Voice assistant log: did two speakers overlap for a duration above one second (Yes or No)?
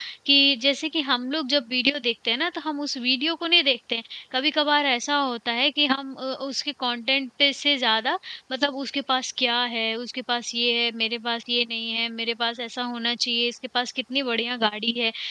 No